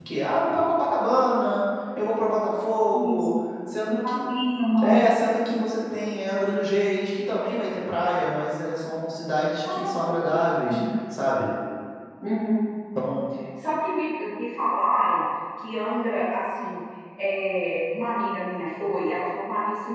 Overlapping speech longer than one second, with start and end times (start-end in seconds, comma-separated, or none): none